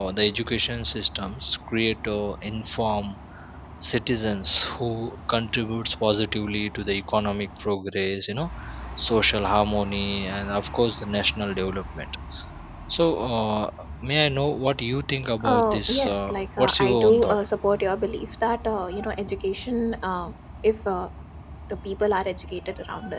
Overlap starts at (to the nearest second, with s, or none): 15 s